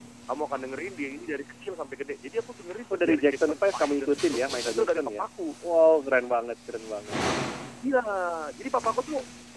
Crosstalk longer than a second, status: present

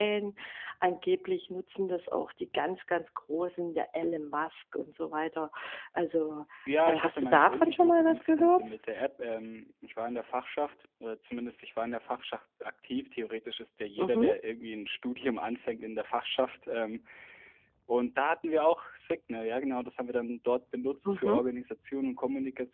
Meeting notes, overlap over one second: present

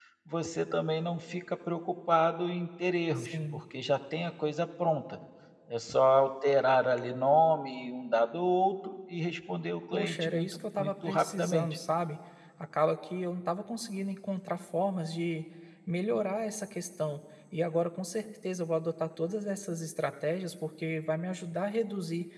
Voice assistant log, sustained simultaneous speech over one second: present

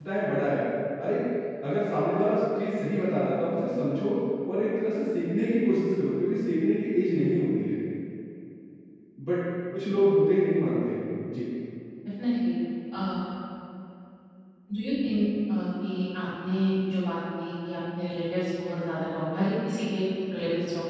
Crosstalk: none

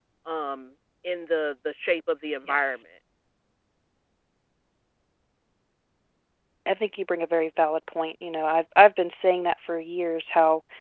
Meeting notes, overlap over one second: none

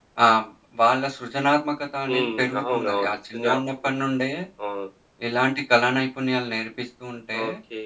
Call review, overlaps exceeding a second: present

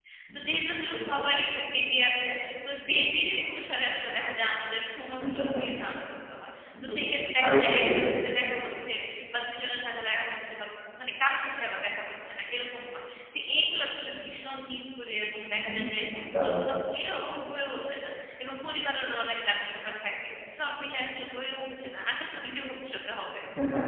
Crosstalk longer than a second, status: present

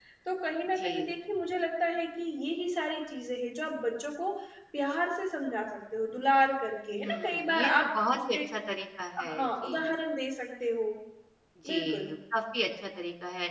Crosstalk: present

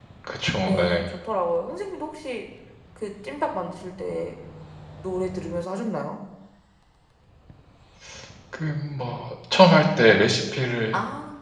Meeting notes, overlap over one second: none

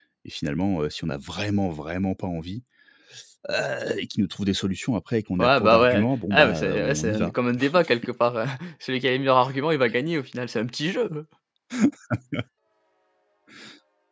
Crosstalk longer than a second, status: present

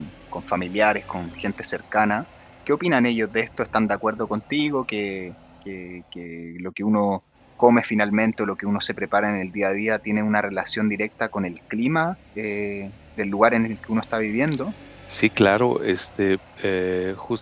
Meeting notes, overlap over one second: none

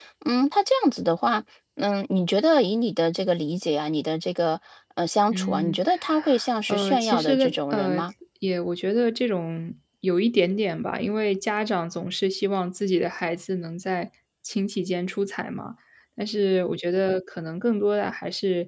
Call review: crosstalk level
present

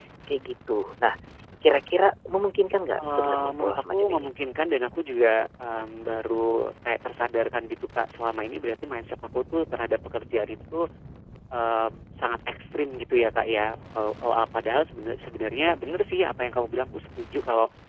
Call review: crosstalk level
present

